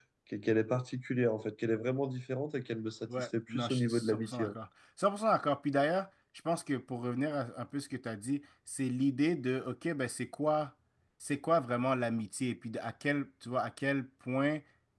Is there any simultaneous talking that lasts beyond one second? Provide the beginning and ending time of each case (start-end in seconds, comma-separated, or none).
3.2-4.5